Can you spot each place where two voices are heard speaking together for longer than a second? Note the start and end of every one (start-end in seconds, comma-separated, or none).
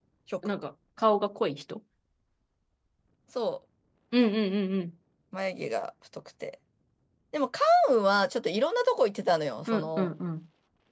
none